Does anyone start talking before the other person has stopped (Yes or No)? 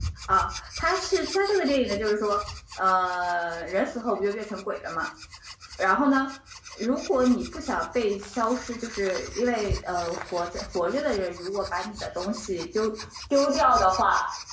No